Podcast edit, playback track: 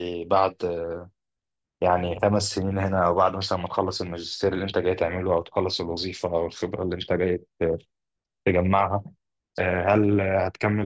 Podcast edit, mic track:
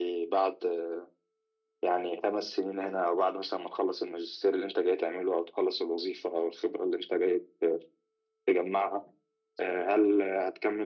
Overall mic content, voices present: echo only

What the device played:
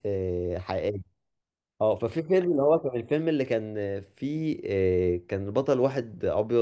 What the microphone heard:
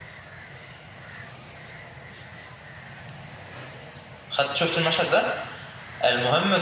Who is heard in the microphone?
user only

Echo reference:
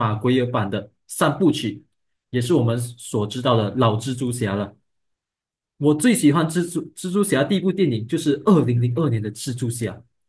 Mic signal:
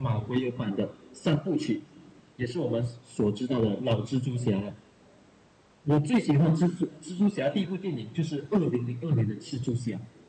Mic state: echo only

